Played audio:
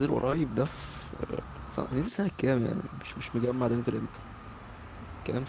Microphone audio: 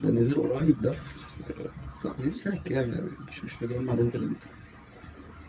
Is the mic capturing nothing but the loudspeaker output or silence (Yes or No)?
Yes